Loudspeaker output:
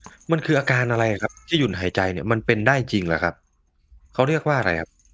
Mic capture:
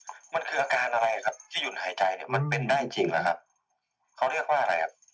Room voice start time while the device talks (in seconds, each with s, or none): 2.3 s